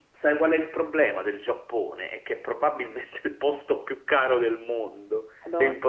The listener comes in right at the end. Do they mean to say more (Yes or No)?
No